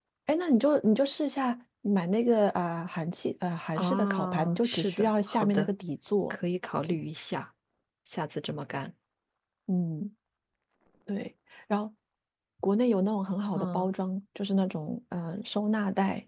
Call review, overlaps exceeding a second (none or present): present